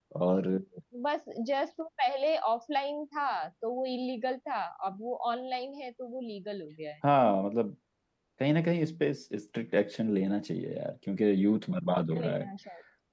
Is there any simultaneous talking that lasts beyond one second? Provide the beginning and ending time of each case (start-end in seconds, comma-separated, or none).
none